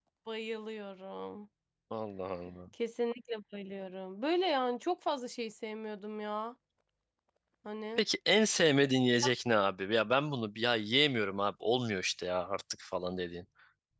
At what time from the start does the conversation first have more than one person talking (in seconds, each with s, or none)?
none